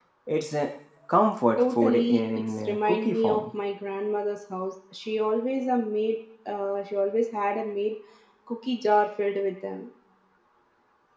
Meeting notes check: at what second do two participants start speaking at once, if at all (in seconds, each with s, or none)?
1.6 s